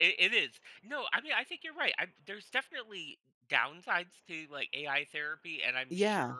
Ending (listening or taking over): listening